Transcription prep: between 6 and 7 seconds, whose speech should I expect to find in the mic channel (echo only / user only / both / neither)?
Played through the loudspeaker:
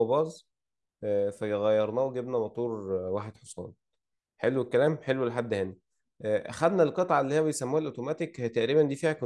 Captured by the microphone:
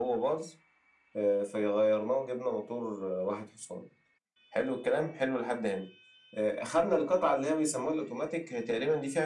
echo only